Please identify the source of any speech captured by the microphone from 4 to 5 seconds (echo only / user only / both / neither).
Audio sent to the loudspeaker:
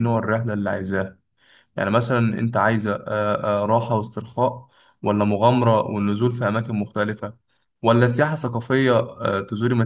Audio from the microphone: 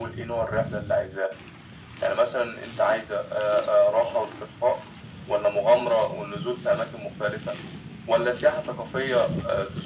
echo only